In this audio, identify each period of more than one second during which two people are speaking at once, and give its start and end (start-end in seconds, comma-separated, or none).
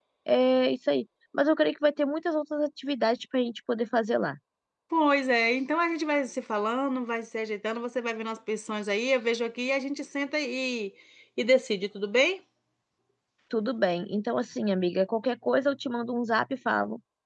none